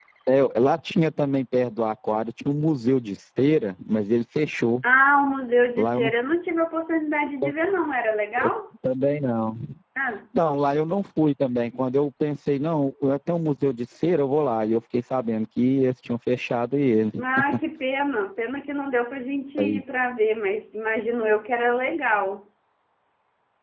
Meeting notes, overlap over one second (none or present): none